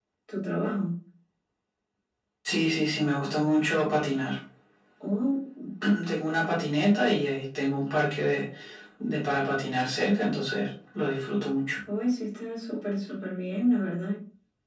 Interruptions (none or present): none